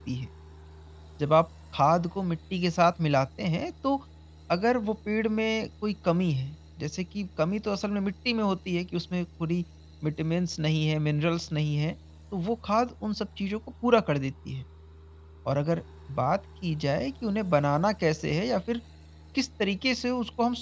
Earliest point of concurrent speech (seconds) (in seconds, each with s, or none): none